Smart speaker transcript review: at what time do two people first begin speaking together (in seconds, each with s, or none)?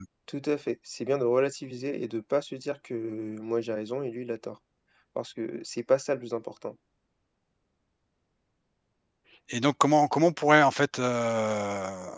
none